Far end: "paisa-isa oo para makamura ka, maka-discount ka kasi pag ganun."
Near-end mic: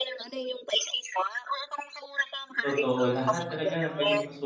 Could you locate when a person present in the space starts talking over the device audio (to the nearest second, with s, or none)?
3 s